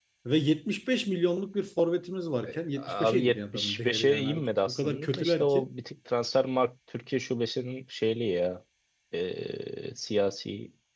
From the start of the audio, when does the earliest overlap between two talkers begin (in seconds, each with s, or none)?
2.5 s